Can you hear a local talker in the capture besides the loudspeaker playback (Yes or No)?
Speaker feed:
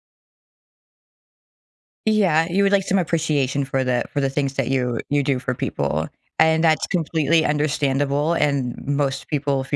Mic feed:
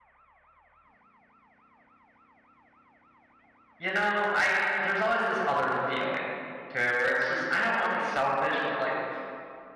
Yes